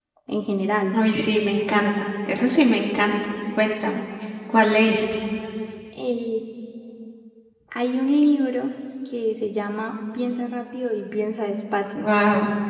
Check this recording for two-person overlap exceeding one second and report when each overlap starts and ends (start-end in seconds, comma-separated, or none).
none